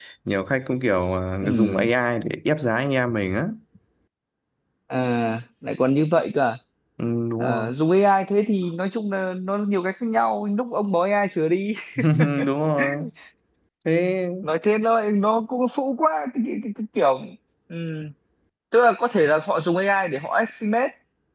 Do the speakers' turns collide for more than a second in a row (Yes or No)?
No